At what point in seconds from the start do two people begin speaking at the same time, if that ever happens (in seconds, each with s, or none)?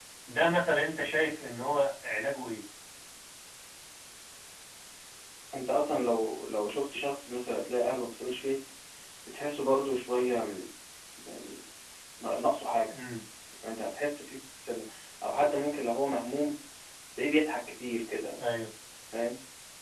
none